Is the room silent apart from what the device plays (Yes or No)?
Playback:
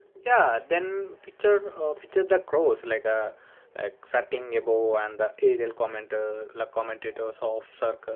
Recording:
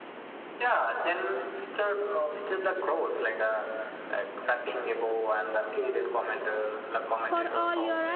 No